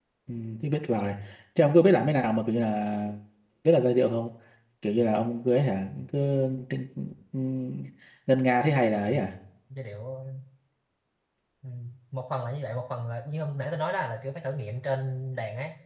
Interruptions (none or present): none